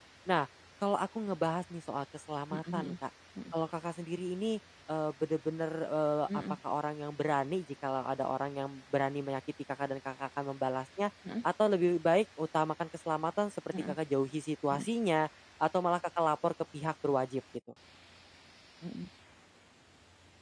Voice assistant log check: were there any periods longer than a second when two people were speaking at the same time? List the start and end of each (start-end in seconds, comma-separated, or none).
none